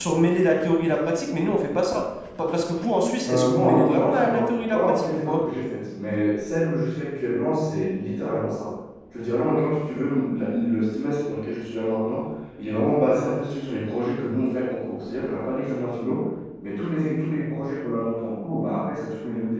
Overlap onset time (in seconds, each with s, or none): 3.2 s